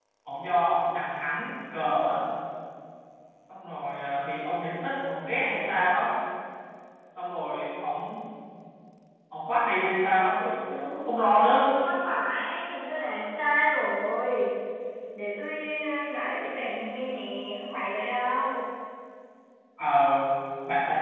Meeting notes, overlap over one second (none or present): none